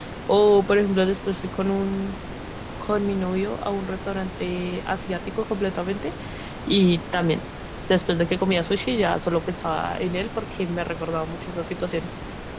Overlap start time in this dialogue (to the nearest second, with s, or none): none